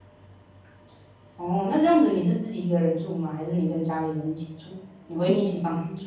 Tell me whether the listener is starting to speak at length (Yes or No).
Yes